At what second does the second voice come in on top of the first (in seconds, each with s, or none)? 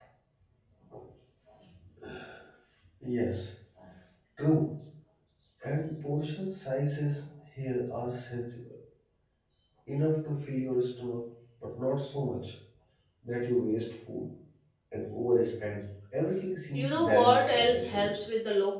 16.7 s